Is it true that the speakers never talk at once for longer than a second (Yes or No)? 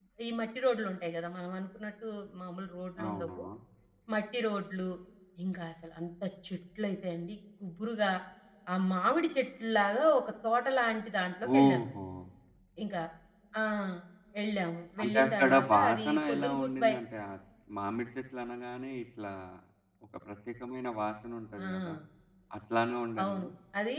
No